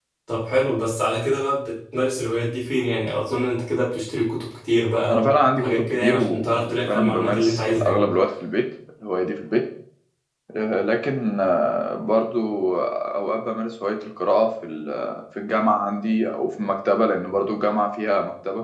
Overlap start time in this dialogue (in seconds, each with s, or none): 5.1 s